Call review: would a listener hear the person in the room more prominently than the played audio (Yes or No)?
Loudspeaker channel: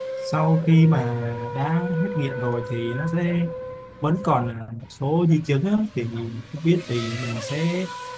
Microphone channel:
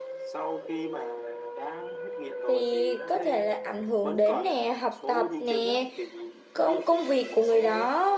Yes